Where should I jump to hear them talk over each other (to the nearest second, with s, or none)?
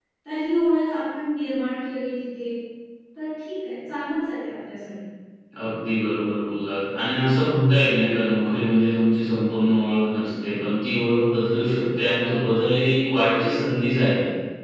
none